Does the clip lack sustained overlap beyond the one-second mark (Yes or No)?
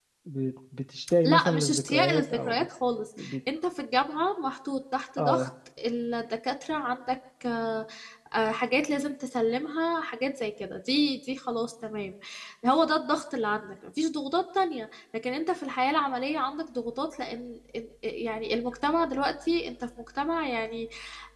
No